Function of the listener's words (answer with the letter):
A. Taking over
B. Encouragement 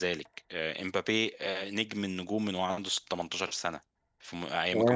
A